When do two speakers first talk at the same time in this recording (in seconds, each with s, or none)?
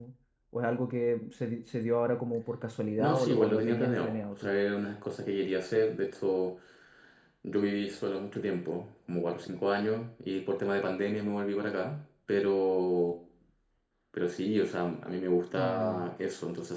3.0 s